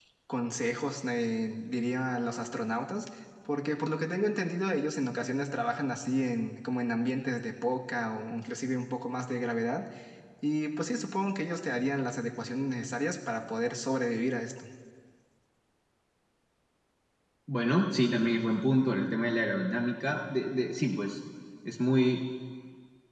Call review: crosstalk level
none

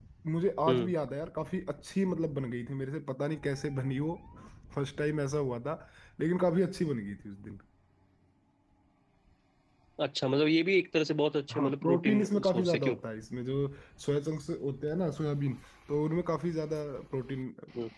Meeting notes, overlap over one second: present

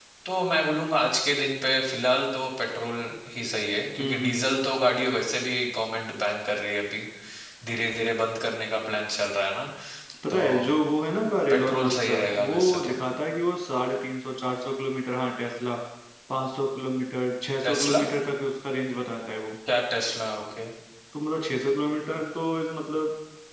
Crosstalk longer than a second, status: present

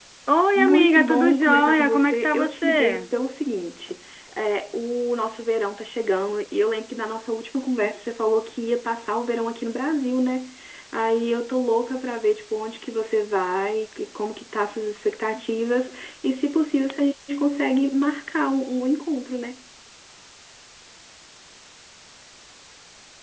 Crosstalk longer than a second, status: present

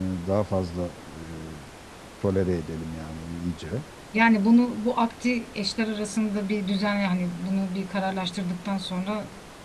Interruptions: none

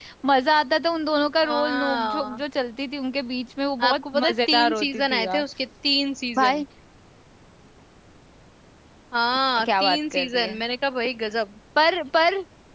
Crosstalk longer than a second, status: present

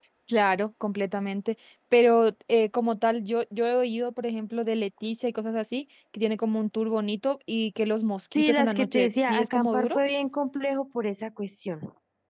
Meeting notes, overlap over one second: present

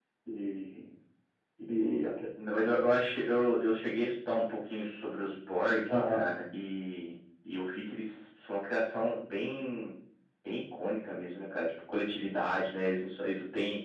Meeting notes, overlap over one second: none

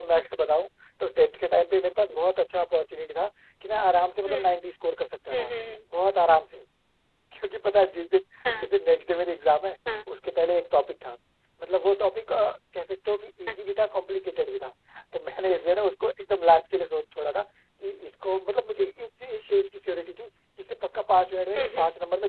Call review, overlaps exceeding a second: none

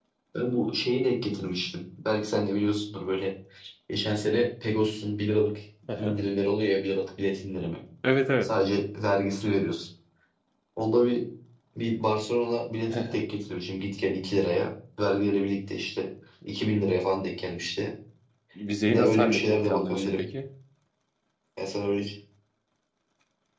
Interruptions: present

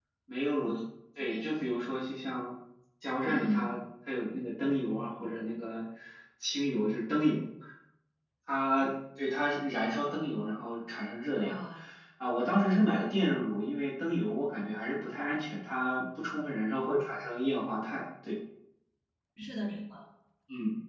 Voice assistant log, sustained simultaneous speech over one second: none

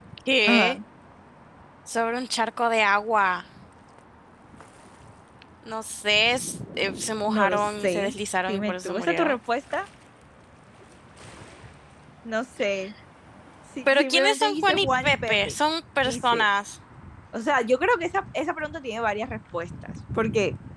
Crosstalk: present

